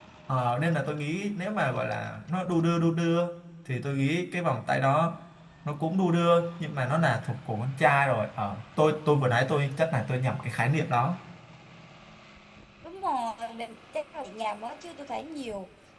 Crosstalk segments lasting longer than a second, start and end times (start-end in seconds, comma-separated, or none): none